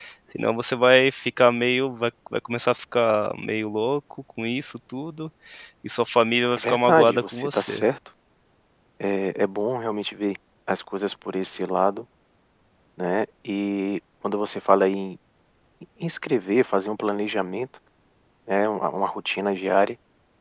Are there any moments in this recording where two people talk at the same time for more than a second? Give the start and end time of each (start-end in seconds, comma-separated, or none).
6.6-7.8